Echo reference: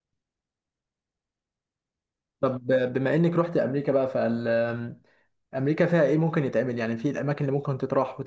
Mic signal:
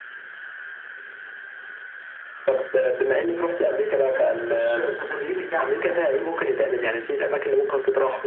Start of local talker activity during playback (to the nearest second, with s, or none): 4 s